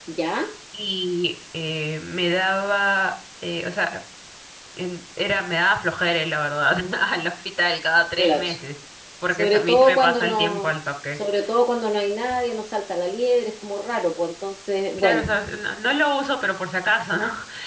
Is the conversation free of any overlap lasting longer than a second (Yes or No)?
No